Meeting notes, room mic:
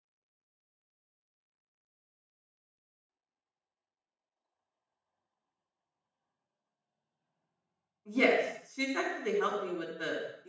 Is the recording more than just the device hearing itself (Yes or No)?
Yes